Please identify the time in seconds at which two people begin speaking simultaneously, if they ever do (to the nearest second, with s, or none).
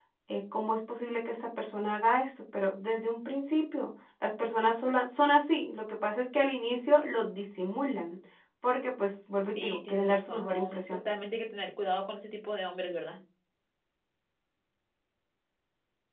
9 s